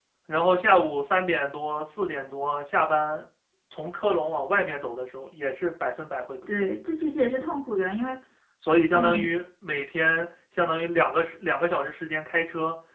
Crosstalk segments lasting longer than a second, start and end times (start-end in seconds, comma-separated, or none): none